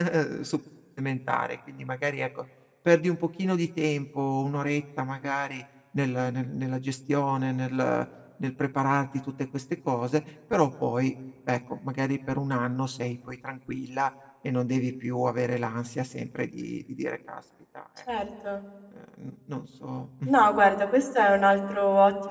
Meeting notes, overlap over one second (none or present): none